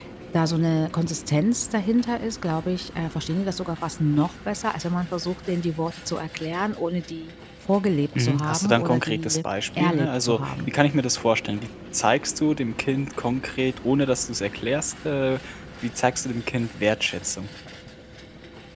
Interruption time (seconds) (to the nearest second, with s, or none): 8 s